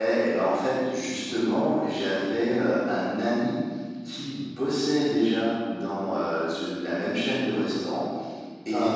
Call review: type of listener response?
listening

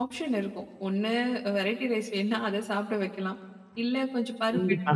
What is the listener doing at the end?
listening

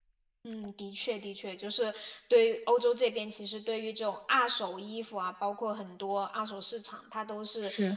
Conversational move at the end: listening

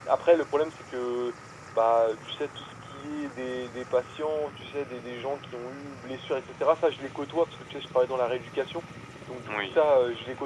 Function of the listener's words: listening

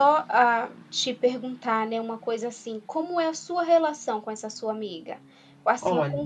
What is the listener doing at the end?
listening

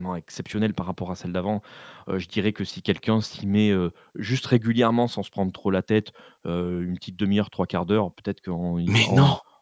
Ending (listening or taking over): listening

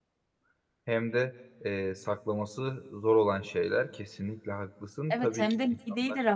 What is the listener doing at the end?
taking over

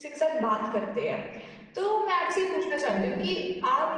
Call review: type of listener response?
listening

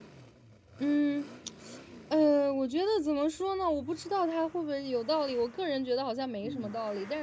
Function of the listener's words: listening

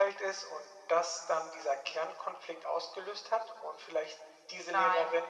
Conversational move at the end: taking over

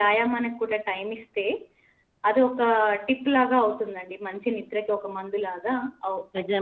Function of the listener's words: taking over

